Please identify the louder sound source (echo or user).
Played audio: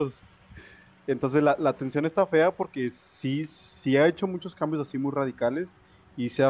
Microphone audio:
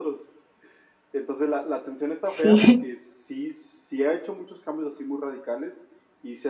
user